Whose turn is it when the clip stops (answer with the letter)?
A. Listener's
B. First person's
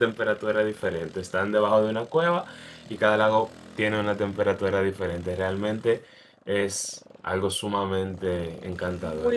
A